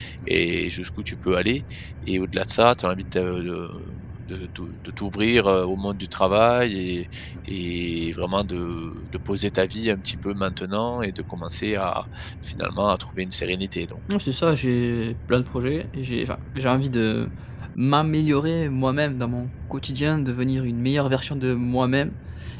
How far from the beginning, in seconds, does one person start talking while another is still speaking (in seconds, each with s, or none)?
none